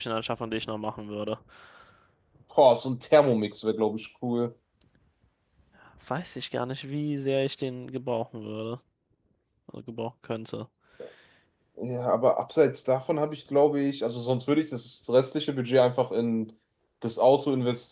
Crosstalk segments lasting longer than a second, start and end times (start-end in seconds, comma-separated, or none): none